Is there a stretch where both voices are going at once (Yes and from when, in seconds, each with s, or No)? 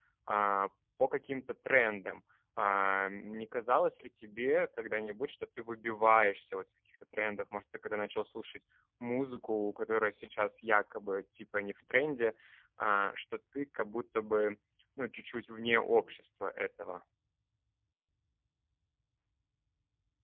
No